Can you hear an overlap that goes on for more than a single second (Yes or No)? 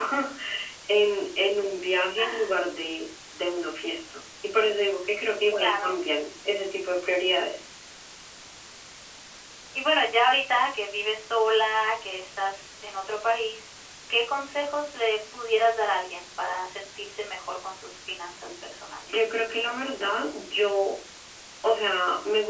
No